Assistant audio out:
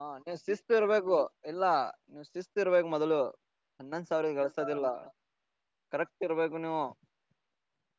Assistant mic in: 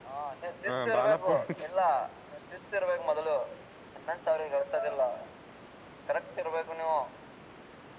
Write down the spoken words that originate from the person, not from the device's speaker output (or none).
ಹಾ ಬಾಲಪ್ಪುಸ್.